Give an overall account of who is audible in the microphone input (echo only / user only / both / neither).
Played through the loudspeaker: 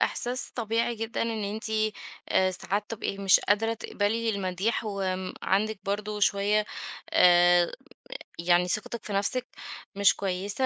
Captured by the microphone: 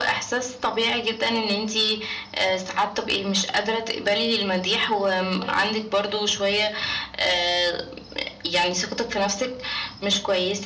both